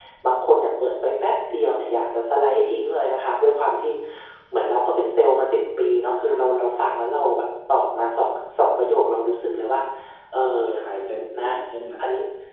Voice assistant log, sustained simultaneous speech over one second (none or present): none